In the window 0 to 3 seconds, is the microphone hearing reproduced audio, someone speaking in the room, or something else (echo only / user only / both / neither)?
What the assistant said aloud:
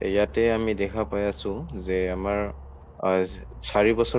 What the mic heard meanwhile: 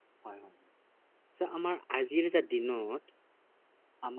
user only